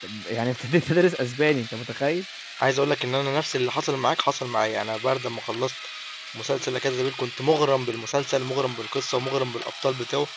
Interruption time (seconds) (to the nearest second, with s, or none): none